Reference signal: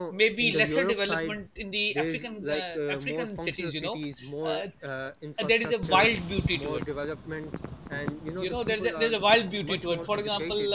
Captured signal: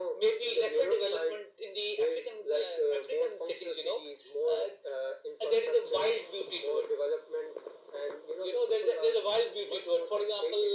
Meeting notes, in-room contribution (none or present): none